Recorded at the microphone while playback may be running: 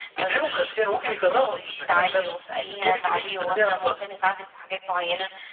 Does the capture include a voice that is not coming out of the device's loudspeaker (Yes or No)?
No